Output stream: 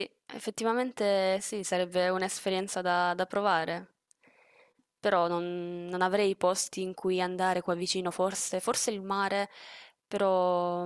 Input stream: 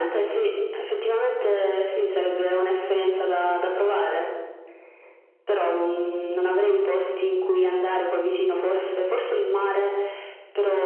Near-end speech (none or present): none